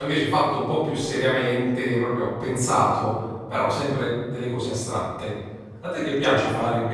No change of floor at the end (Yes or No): No